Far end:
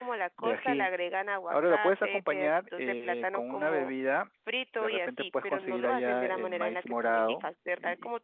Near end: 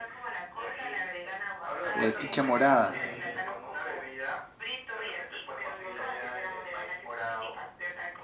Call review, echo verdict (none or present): present